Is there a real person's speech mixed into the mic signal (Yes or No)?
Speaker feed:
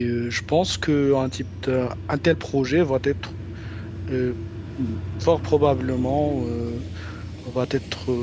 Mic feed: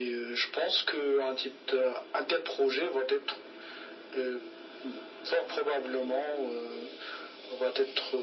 No